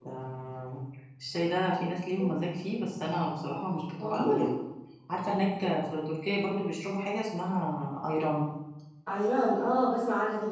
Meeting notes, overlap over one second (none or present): none